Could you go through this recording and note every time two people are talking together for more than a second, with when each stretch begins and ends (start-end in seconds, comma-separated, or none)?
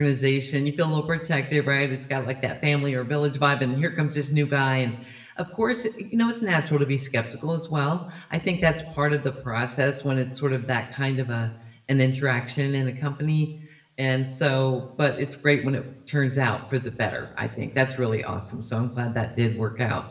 none